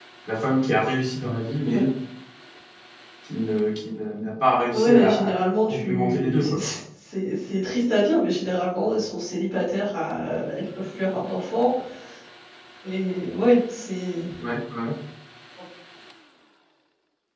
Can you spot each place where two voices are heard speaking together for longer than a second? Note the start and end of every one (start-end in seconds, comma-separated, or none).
4.7-6.6